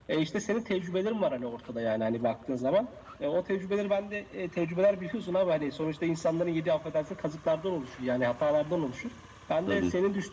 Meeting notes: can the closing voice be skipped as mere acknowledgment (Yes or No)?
Yes